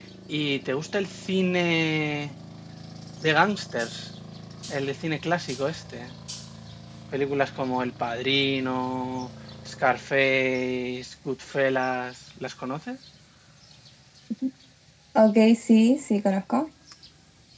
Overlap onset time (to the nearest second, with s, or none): none